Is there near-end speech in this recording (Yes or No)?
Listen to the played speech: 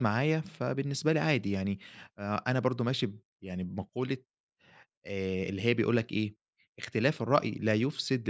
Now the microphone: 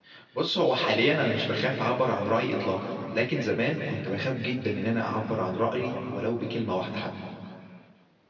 Yes